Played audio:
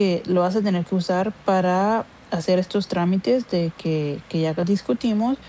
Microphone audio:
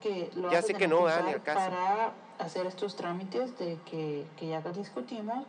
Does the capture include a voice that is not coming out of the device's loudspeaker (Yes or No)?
Yes